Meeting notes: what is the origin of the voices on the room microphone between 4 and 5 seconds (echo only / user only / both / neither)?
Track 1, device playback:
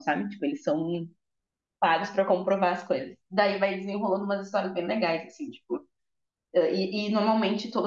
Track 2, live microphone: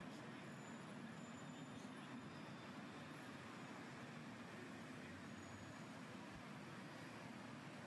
neither